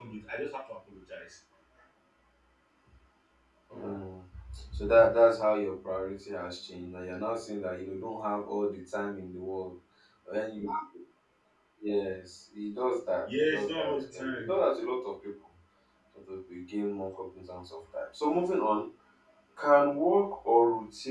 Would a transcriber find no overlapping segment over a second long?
No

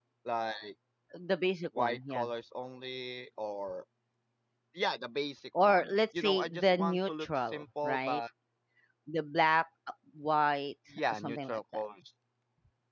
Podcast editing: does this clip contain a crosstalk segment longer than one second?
Yes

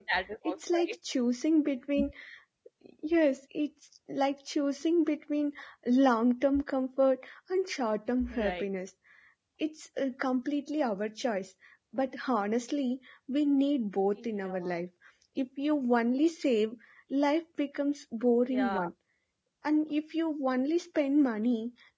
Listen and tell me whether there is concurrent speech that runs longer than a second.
No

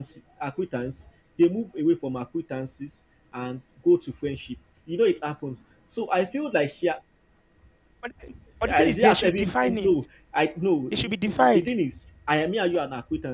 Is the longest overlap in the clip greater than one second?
Yes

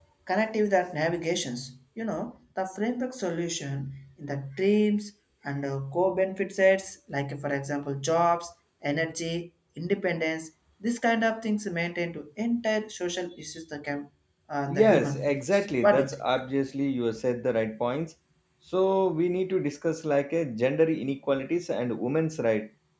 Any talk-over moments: Yes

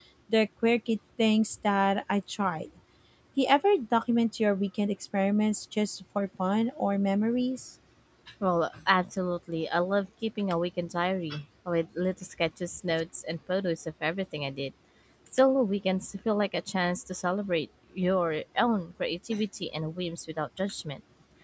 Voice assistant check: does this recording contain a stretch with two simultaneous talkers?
No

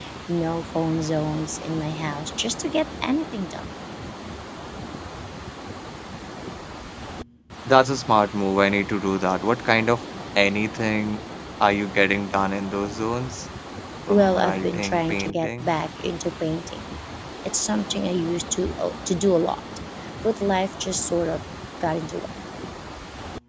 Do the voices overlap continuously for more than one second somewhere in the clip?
Yes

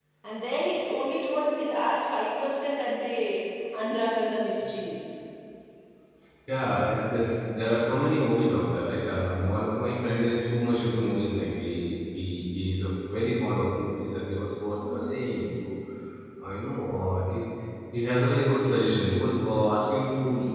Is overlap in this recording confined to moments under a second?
Yes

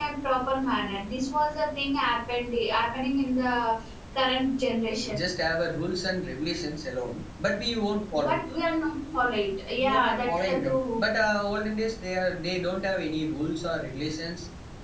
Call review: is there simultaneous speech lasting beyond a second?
Yes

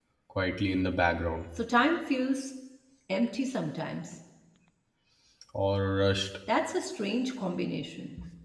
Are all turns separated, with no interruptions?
Yes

